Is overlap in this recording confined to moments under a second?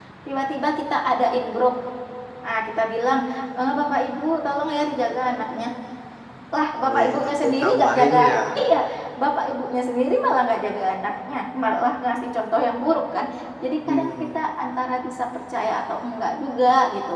No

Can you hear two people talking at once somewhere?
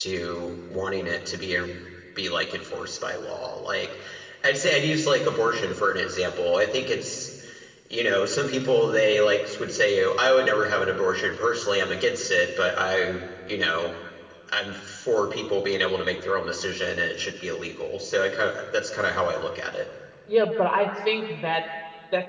No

